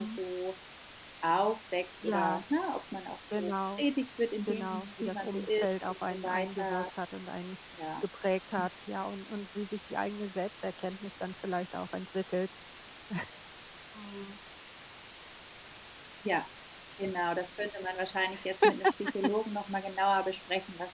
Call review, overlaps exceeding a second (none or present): present